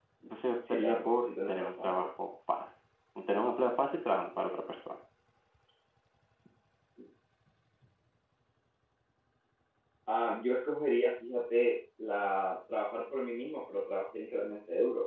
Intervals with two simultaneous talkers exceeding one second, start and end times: 0.7-2.1

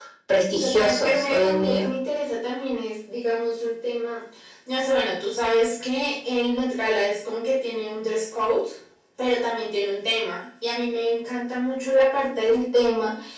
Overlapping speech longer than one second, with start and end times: 0.6-1.9

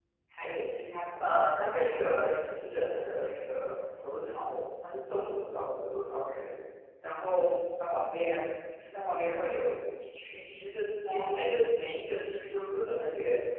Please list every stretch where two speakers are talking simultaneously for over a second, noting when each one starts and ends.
1.2-4.1

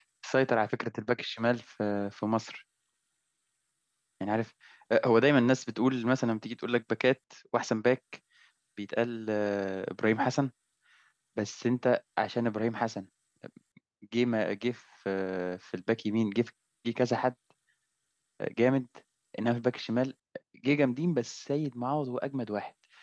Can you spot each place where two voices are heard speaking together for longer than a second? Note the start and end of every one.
none

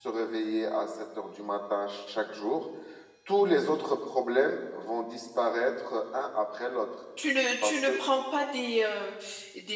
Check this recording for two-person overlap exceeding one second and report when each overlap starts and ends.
none

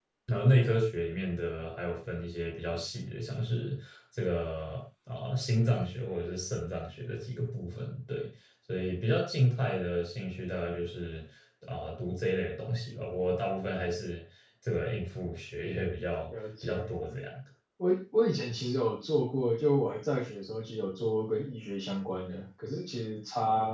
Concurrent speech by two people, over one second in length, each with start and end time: none

